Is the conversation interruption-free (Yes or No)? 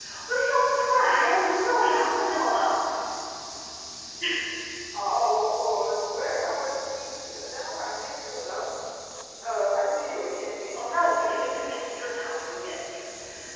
No